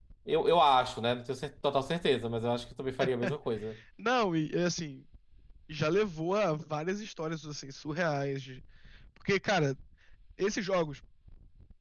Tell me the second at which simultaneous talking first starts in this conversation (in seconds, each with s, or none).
none